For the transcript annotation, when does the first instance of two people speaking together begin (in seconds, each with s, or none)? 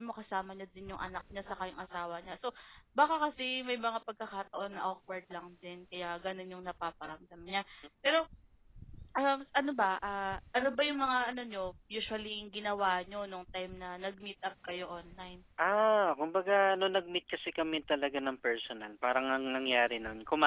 none